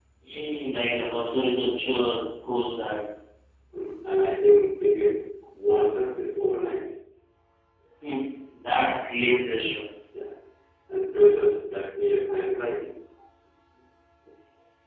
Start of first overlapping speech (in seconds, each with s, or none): none